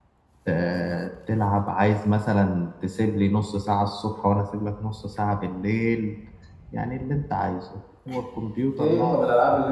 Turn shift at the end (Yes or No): Yes